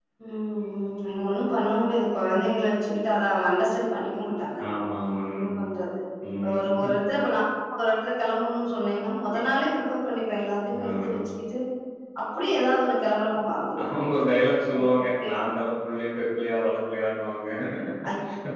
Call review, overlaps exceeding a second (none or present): none